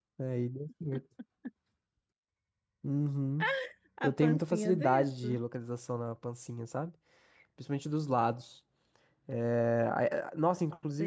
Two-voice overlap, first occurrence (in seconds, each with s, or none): 4.0 s